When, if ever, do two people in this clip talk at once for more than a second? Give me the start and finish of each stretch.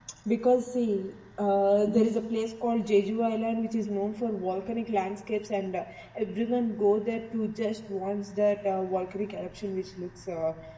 none

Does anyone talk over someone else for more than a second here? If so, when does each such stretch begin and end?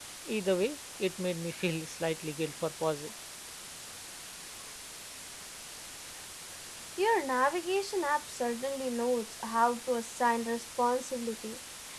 none

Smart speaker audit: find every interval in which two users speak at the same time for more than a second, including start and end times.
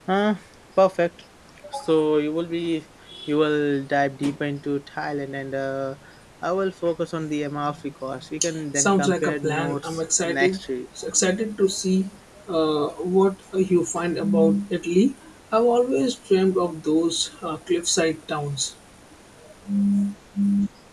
8.8-10.6

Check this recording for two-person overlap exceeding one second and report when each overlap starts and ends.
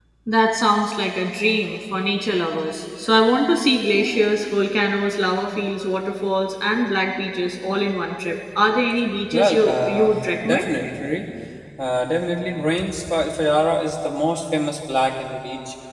9.3-10.7

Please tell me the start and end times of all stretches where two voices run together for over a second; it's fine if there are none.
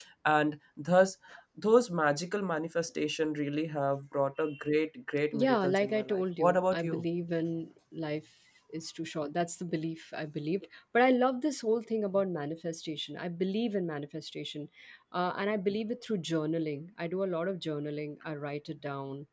5.3-7.0

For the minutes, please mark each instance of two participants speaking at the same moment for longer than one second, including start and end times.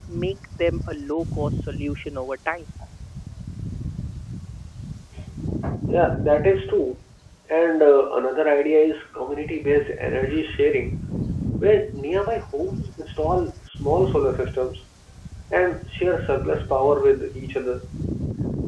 none

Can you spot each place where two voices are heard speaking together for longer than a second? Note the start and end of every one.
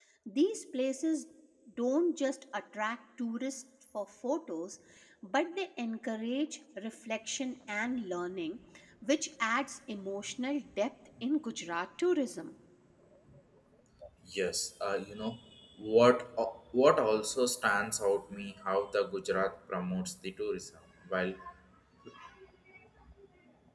none

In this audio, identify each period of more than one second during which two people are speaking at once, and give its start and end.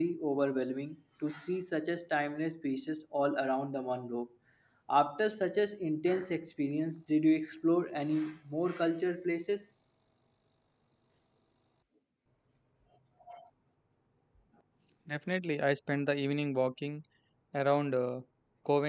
none

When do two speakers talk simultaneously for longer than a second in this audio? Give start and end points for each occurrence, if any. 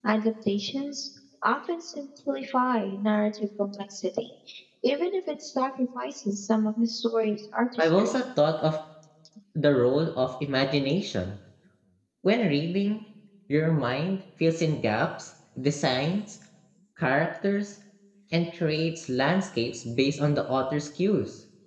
none

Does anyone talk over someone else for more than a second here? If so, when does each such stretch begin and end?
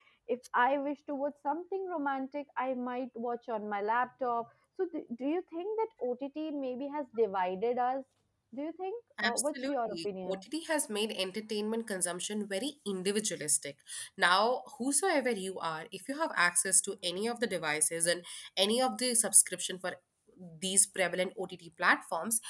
9.2-10.4

